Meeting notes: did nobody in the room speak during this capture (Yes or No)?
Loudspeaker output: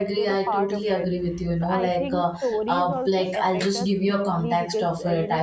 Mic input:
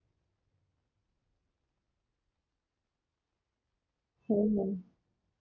No